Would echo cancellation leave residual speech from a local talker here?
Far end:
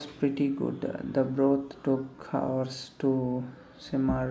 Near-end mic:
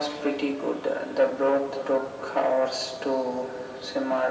No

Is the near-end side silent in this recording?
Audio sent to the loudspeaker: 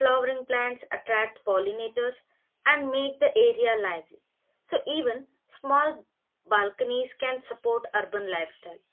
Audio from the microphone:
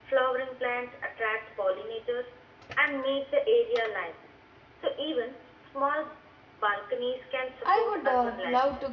No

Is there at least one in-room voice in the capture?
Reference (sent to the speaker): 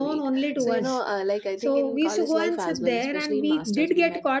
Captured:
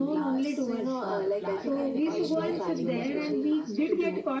Yes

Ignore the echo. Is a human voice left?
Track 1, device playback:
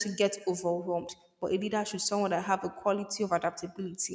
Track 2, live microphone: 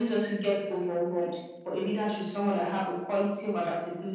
No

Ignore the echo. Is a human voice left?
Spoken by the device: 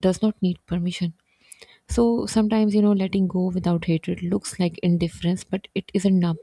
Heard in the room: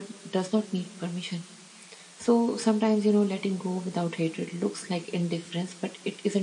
No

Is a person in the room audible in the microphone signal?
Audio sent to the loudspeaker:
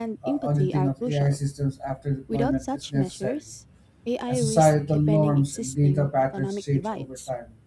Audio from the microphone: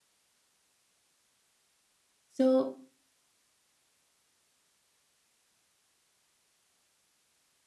Yes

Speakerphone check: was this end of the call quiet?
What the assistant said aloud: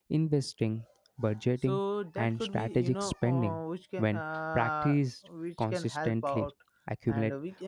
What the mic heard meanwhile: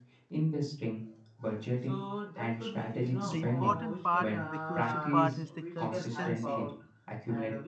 No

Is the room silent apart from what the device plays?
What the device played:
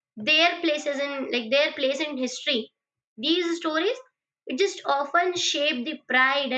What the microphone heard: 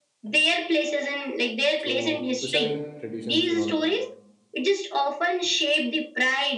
No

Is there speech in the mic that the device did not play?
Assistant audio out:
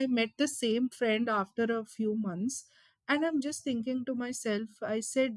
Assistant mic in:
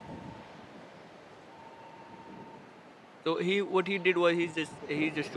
Yes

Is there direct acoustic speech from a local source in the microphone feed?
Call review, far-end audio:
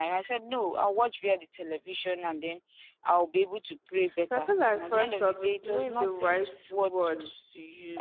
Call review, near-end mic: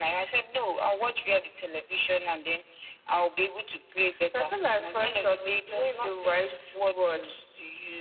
No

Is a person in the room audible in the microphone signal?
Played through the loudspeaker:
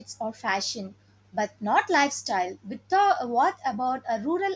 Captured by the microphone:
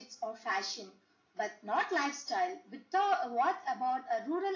No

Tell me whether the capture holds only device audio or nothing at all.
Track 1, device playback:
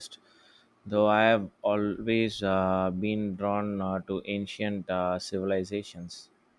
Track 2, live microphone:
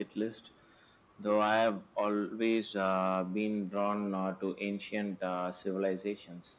Yes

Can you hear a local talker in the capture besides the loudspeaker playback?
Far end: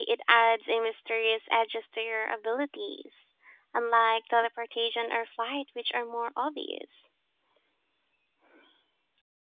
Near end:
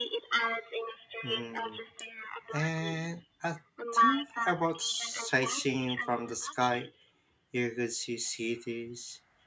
Yes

